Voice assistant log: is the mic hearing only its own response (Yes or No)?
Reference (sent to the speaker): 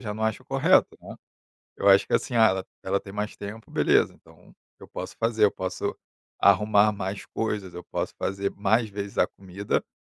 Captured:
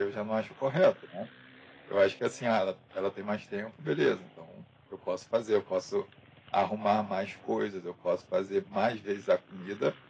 Yes